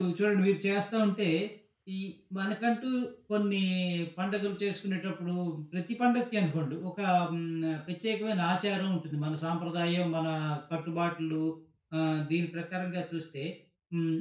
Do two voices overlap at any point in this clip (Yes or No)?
No